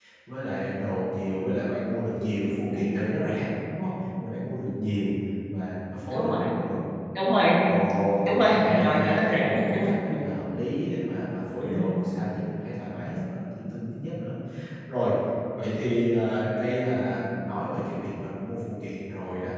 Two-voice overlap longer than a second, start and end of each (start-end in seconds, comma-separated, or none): 8.3-10.2